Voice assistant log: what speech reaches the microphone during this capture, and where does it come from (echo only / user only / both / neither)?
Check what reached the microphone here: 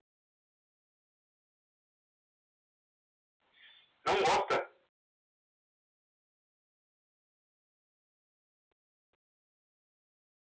user only